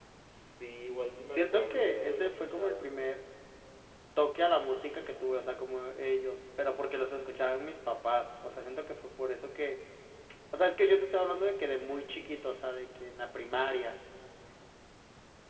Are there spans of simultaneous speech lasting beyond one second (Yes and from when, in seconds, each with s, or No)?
Yes, from 1.3 s